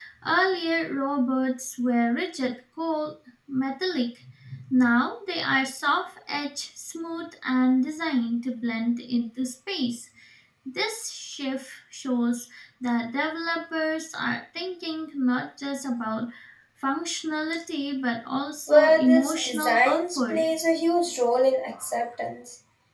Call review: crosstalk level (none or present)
present